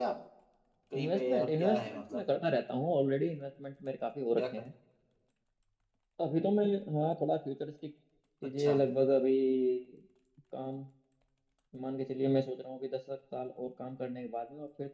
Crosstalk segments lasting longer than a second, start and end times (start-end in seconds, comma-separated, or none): 1.0-2.2